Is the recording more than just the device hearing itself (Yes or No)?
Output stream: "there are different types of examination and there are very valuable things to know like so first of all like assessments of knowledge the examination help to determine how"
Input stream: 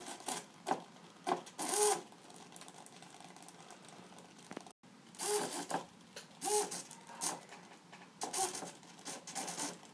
No